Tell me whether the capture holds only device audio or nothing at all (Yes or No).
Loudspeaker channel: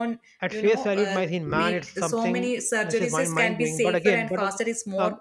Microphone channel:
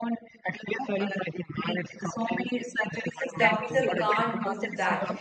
No